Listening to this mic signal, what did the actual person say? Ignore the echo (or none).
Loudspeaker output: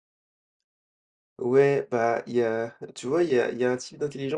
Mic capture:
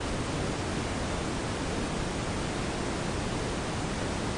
none